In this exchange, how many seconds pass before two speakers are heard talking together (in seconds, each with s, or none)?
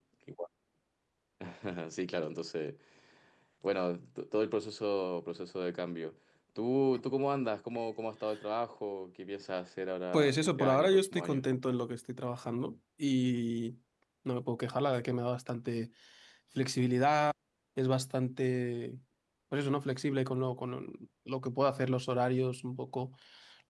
10.1 s